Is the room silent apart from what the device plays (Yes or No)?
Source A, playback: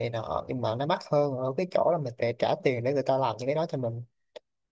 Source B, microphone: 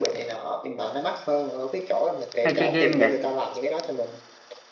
No